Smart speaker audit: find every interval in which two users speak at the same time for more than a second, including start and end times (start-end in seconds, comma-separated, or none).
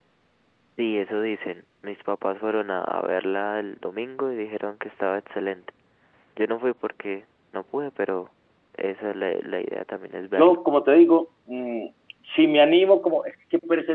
none